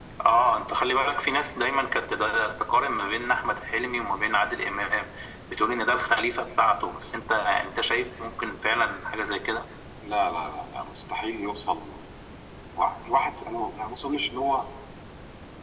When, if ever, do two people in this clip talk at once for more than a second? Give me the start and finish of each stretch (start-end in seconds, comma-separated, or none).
none